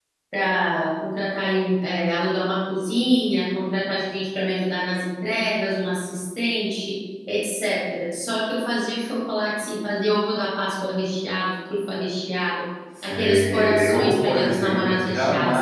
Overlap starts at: 12.9 s

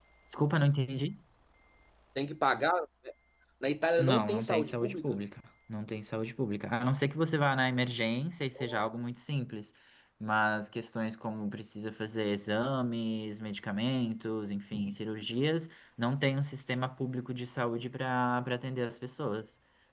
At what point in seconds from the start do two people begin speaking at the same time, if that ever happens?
4.0 s

